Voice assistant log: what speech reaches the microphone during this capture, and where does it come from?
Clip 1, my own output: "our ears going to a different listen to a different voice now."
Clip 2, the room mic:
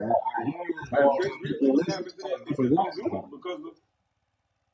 both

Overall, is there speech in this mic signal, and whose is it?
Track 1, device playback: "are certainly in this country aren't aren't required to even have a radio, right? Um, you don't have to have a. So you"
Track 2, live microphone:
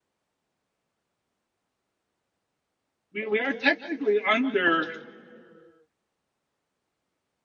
user only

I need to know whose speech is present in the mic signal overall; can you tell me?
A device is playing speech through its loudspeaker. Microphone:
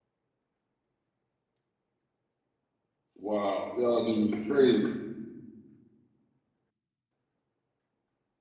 user only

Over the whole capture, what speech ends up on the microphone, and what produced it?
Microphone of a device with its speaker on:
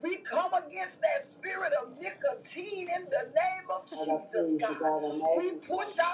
both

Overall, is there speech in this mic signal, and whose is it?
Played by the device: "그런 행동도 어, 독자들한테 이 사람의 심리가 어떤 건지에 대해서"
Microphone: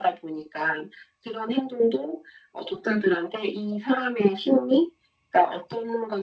echo only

